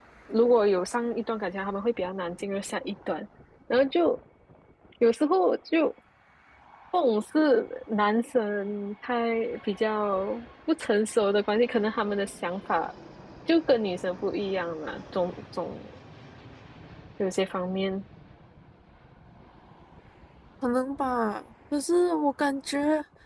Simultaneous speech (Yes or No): No